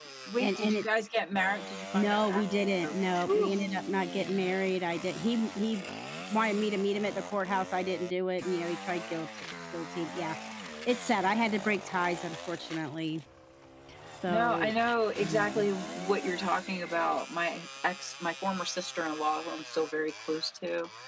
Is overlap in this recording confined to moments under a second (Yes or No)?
No